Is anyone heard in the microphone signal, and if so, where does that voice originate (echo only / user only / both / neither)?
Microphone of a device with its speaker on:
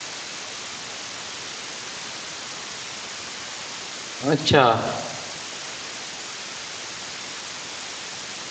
user only